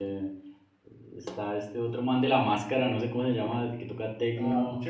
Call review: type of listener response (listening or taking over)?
taking over